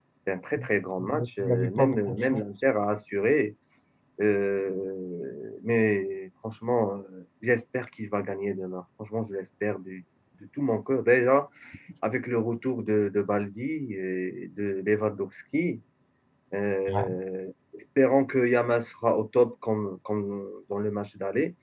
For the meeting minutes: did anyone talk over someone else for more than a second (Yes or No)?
Yes